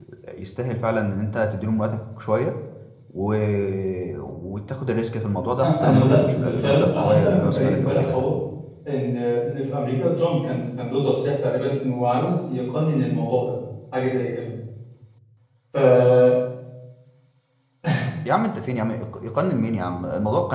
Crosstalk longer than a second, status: present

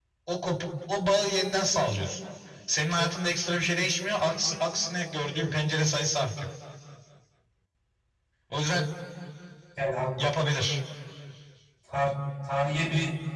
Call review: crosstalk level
none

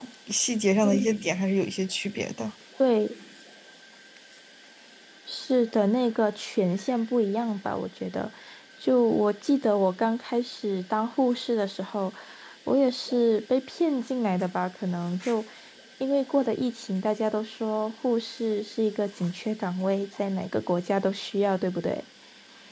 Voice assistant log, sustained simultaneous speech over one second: none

